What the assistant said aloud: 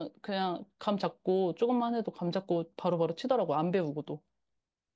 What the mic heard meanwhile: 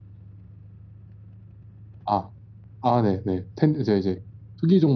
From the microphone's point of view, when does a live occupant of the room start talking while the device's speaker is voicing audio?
2.0 s

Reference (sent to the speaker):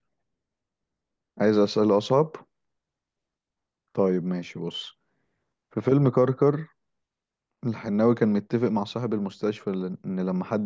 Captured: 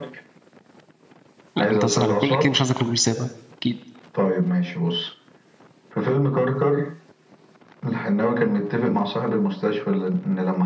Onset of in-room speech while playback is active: 1.6 s

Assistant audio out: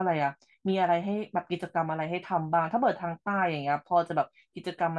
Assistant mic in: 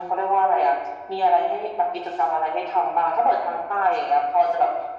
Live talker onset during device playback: none

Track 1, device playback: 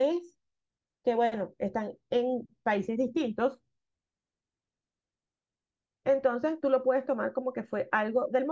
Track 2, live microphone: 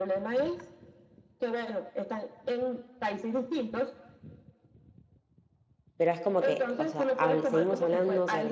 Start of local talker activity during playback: 6.0 s

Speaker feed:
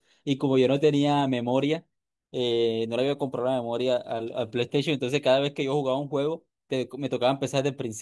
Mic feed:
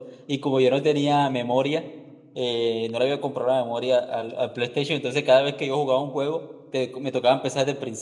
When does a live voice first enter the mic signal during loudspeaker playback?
none

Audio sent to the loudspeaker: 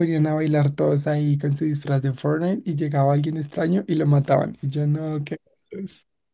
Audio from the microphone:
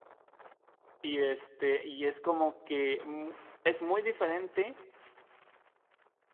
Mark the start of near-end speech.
1.0 s

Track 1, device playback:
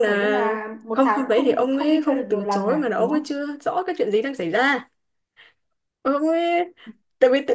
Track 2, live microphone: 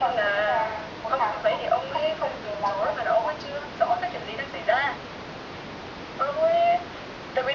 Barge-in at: none

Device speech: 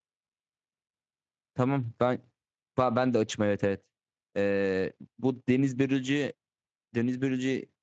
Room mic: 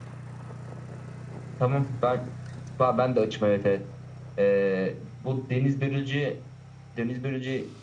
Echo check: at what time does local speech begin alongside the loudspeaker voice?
none

